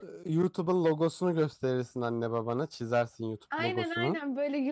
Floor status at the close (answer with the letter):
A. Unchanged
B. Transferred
B